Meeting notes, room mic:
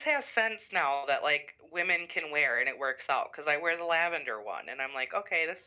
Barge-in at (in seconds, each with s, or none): none